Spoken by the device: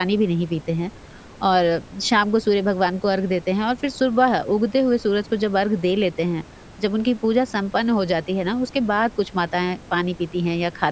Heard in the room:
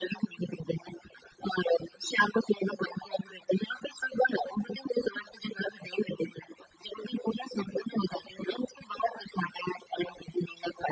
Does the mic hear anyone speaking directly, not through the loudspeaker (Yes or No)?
No